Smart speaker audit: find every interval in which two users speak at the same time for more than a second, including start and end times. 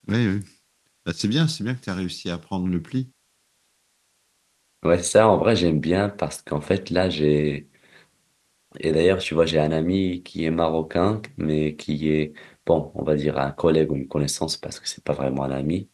none

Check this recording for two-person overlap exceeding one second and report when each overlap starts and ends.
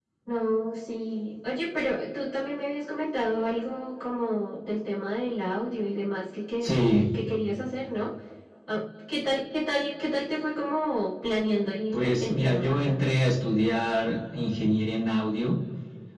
11.9-13.1

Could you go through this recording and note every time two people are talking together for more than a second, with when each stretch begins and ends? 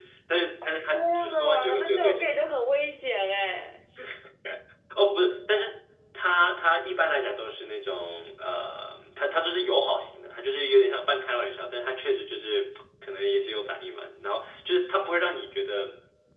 0.9-2.4

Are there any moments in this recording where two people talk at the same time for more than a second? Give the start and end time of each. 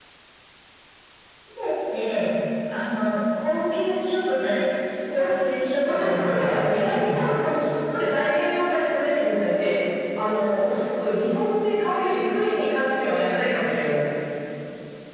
5.8-7.2

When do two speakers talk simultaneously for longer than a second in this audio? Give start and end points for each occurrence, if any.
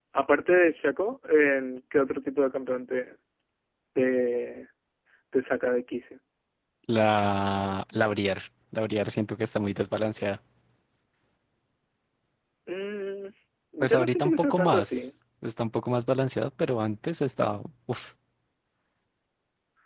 13.8-15.0

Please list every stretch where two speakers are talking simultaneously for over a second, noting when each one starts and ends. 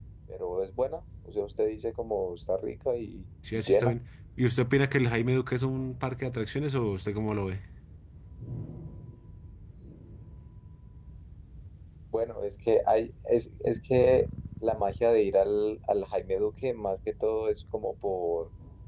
none

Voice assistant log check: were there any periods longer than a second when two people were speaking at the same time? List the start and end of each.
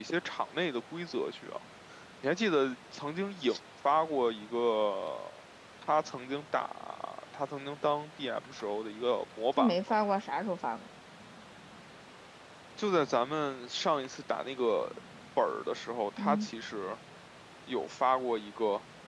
none

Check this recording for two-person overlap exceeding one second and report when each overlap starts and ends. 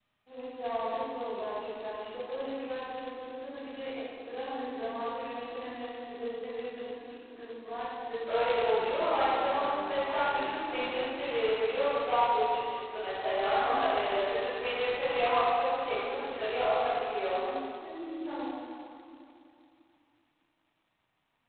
8.3-11.0

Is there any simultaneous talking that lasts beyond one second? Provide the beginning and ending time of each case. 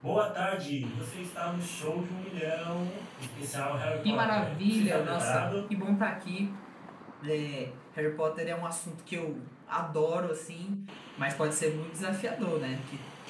4.0-5.5

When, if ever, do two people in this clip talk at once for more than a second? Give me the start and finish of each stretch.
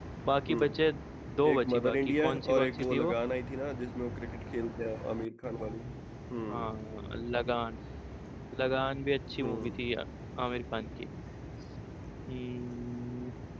1.5-3.1

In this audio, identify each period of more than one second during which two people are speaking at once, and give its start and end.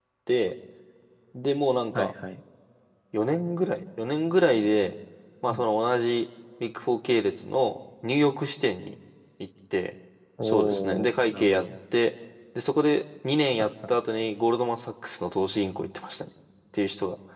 10.4-11.6

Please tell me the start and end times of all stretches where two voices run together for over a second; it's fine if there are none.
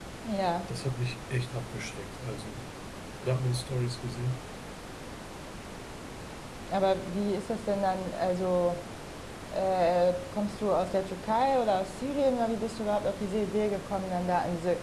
none

